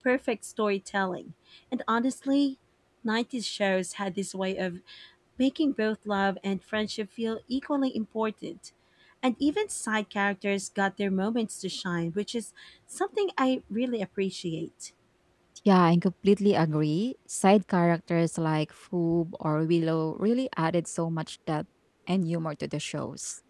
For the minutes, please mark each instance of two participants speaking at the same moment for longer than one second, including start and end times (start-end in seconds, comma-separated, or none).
none